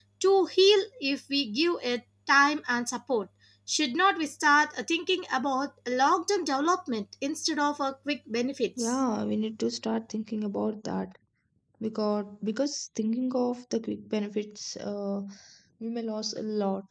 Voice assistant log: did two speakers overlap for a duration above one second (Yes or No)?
No